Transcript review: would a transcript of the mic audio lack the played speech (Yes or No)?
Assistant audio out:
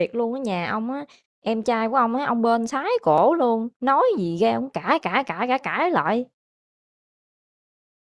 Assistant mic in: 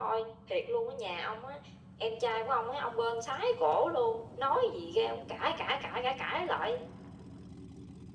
No